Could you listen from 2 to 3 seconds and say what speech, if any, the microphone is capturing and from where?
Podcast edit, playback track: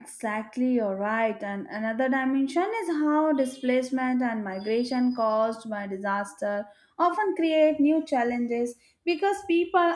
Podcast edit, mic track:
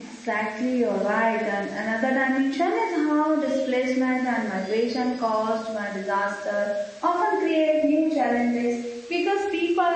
echo only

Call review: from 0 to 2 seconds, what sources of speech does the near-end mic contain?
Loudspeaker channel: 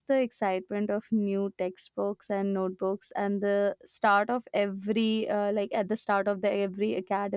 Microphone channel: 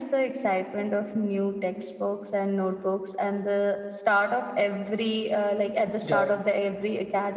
echo only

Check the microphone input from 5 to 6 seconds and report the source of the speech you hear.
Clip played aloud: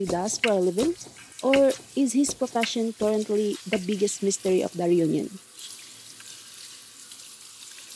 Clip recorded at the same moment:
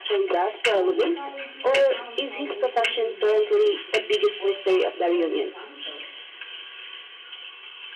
both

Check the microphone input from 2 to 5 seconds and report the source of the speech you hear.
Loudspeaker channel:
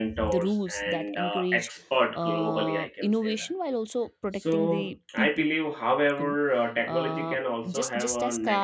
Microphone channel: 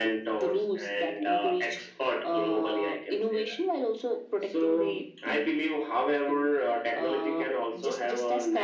echo only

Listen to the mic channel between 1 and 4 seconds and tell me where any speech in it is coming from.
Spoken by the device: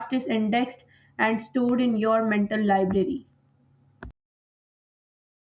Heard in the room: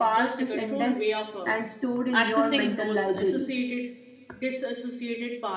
both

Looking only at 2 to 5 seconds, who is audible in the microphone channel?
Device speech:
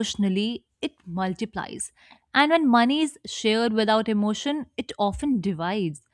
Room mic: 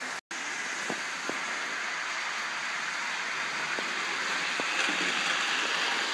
neither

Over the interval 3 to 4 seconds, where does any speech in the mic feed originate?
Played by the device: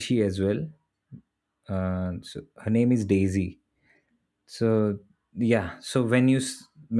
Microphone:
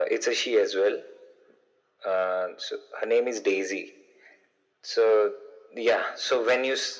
echo only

